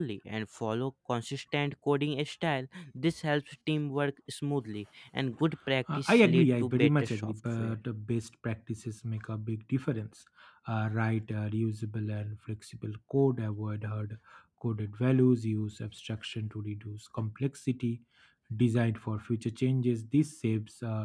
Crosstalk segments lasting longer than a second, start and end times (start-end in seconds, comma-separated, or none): 5.9-7.8